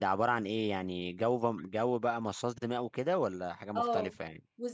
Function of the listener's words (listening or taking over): taking over